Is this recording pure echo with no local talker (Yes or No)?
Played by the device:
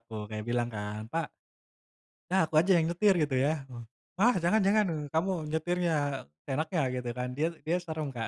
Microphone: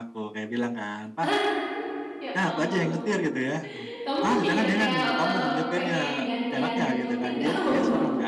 No